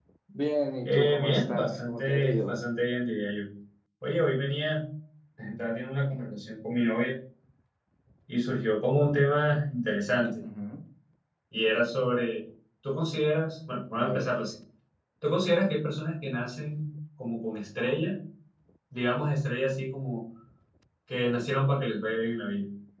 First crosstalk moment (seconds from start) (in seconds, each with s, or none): 0.8 s